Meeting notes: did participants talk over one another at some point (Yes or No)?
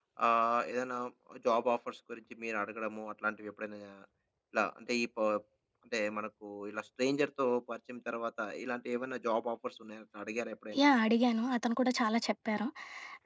No